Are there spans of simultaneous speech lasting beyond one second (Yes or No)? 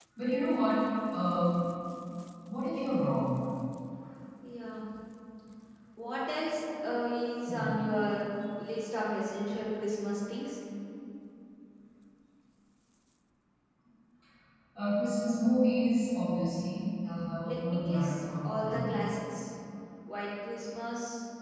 Yes